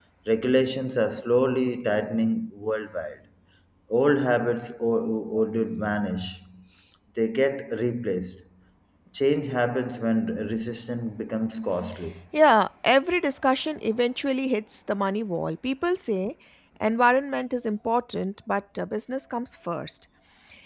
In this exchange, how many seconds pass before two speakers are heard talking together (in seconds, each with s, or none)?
none